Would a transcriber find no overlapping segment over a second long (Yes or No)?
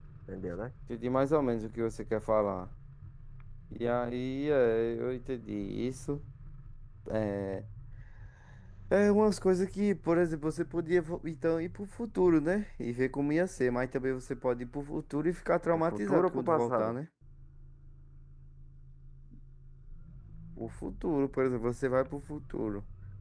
No